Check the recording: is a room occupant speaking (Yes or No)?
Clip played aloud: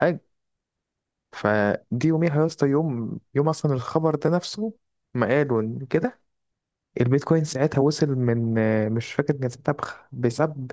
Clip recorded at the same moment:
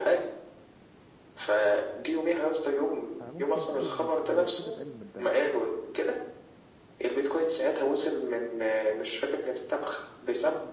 Yes